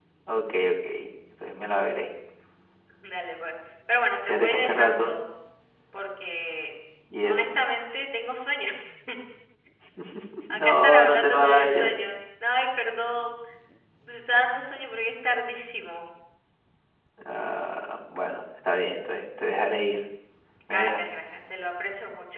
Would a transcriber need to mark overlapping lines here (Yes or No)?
Yes